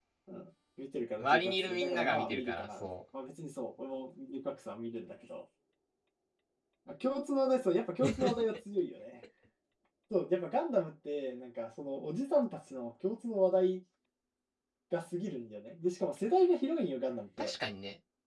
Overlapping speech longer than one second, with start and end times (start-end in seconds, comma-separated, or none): 1.2-2.9